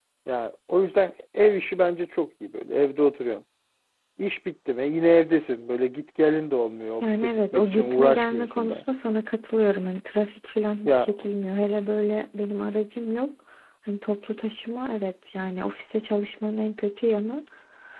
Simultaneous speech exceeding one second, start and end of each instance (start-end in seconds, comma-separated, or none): 7.0-8.8